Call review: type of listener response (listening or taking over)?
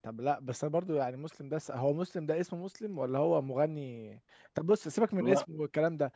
listening